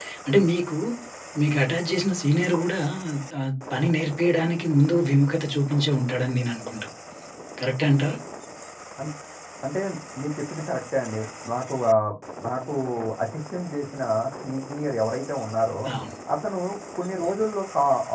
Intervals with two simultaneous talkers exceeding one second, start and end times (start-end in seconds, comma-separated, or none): none